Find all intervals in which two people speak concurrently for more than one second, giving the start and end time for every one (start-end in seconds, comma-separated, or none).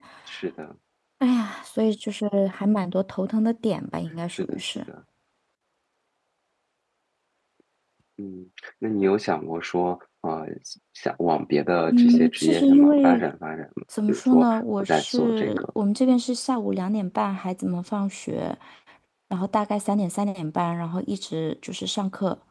11.9-13.2, 14.1-15.6